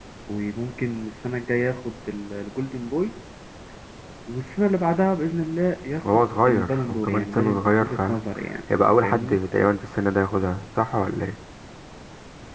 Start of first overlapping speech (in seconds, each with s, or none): 6.0 s